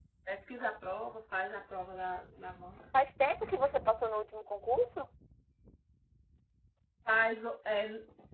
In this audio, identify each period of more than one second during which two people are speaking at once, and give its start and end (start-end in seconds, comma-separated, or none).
none